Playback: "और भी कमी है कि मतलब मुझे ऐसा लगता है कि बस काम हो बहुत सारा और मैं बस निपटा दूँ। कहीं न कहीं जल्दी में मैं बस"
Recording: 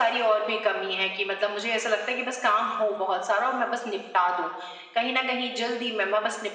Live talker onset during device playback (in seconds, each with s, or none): none